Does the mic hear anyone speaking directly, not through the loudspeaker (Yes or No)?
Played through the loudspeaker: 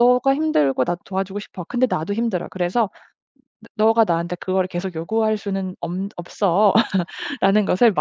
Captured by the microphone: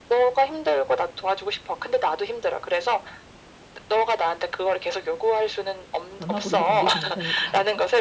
Yes